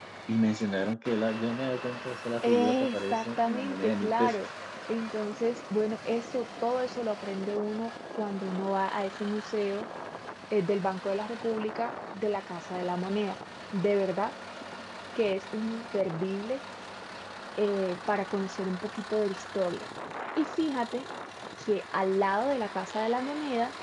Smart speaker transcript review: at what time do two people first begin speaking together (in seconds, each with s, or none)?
2.4 s